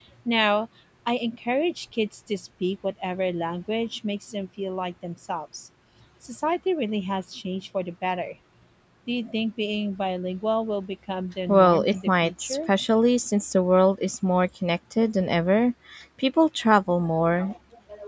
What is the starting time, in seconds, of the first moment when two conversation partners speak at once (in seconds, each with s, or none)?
11.5 s